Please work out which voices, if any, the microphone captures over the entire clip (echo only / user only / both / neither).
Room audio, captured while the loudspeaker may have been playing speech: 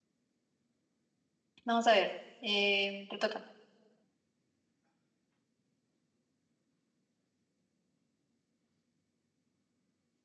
user only